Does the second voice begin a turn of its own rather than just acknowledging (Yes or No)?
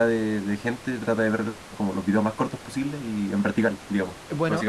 Yes